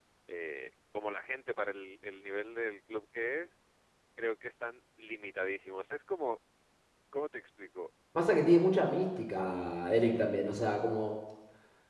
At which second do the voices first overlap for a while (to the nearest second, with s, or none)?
none